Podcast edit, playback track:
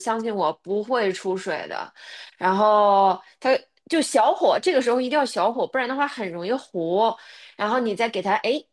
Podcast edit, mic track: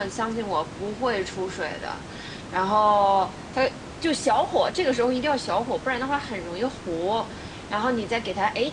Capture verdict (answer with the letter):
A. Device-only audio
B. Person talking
A